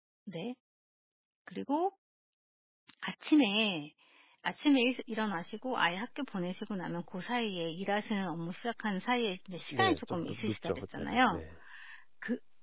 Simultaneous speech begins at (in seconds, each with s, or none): 9.7 s